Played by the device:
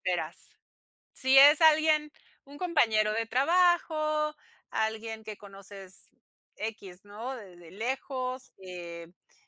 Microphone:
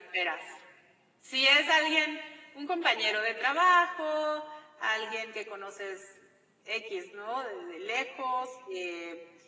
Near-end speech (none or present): none